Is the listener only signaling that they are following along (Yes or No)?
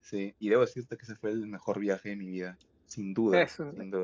No